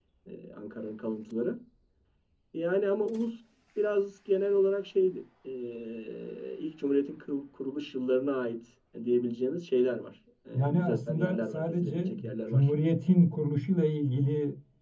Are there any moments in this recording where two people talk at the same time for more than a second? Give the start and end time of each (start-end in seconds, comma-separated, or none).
10.5-12.7